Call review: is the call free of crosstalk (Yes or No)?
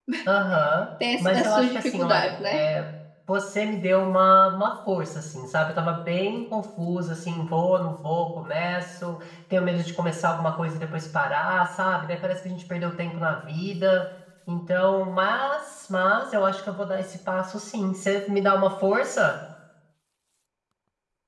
No